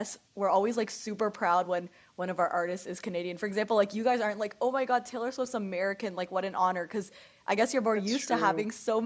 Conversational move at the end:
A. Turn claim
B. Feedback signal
B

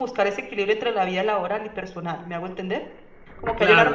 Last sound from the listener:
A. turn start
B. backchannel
A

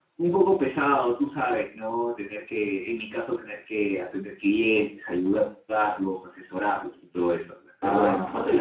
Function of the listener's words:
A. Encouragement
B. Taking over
B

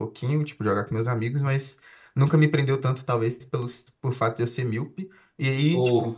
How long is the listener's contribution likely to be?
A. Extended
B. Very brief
B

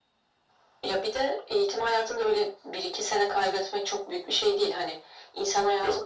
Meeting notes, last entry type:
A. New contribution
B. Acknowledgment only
B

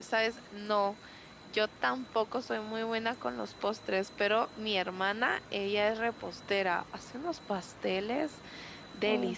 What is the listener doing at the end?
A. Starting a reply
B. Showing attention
B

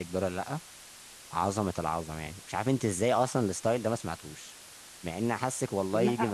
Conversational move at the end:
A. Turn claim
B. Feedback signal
A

